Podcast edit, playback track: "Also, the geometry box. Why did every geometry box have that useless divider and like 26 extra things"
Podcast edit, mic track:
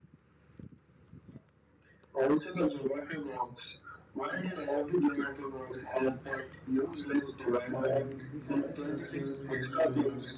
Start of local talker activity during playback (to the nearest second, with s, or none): 8 s